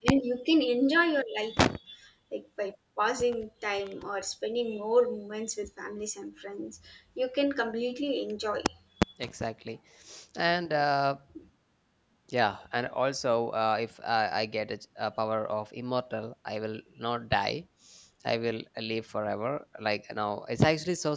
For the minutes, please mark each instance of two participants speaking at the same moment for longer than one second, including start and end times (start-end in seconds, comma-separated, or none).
none